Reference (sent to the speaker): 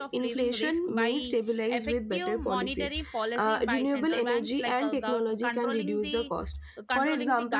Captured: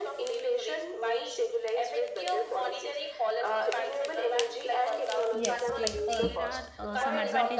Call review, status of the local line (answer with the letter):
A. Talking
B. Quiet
A